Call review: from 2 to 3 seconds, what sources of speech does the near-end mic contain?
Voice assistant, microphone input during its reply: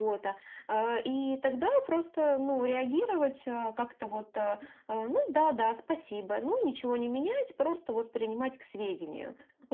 echo only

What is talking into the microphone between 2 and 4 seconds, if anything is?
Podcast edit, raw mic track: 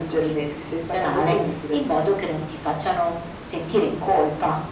echo only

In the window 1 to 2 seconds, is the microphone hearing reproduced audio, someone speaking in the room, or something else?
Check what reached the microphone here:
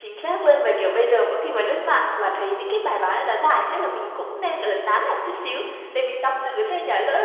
user only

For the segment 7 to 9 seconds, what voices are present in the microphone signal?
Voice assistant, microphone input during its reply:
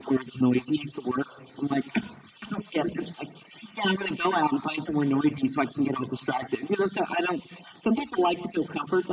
echo only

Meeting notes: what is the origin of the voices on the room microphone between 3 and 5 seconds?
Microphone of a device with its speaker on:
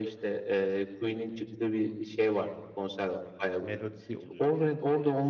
both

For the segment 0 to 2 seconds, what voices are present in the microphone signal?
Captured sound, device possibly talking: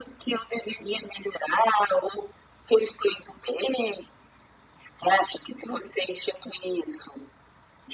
echo only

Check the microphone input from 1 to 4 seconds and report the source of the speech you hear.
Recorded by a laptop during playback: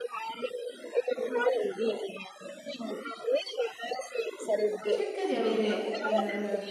echo only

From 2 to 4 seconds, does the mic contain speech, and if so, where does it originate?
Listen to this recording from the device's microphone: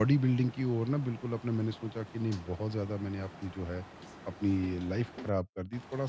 user only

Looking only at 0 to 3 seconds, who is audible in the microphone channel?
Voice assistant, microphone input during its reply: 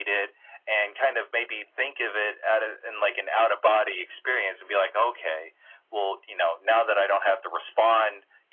echo only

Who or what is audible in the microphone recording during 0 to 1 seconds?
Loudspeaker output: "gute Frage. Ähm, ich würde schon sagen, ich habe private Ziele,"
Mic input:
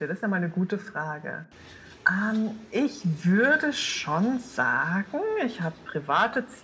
echo only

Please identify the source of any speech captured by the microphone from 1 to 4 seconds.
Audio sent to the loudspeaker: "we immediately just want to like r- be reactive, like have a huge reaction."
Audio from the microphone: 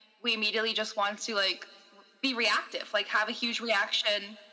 echo only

